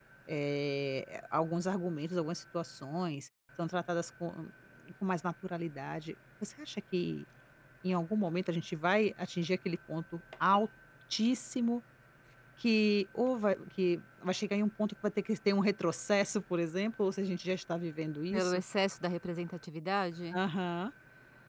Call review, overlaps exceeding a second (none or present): none